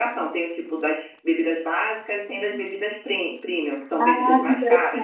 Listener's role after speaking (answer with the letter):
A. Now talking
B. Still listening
A